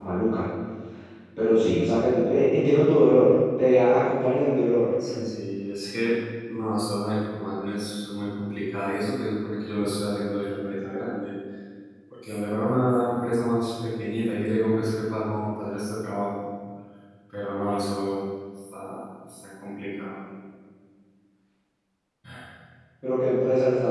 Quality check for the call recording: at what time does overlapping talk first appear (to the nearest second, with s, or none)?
none